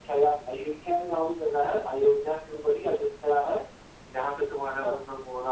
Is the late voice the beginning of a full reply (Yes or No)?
No